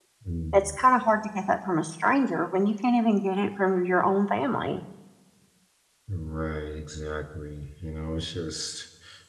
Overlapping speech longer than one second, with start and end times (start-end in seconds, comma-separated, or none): none